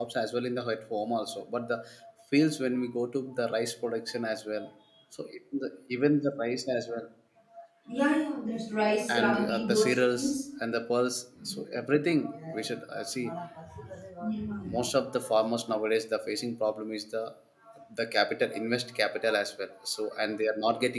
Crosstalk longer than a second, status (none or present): present